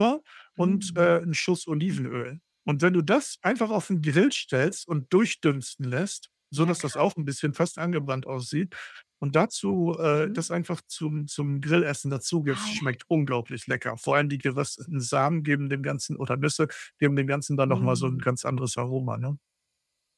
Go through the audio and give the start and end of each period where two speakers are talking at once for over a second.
none

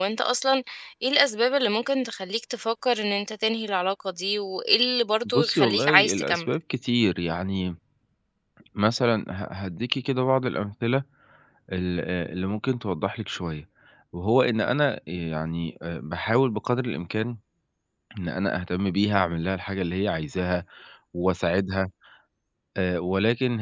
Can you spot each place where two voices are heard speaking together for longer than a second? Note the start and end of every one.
5.2-6.5

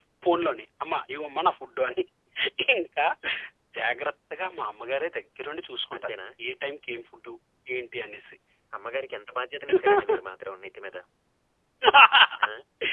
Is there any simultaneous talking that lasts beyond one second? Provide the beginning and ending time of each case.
none

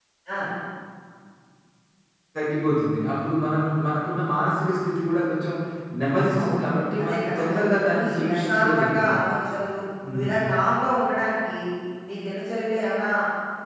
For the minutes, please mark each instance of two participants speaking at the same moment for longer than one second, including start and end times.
7.0-9.1

